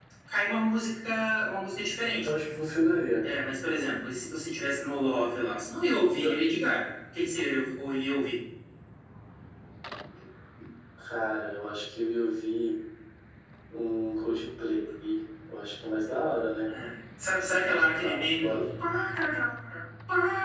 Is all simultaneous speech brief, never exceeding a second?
No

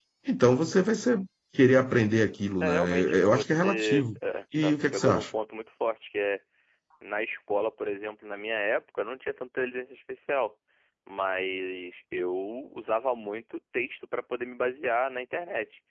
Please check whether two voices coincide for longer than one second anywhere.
Yes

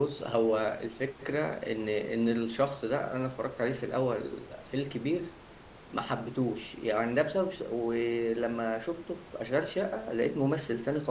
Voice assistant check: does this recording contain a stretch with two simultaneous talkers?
No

